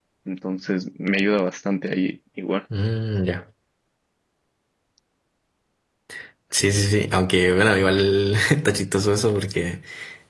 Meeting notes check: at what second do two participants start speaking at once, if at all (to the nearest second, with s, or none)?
none